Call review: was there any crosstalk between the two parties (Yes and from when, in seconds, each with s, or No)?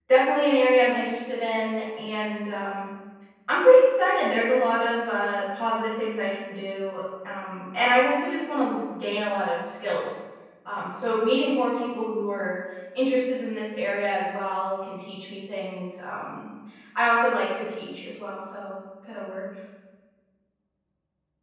No